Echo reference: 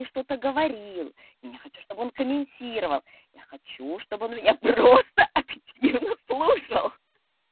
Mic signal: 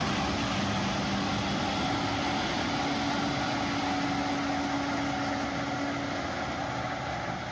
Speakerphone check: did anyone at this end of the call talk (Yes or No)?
No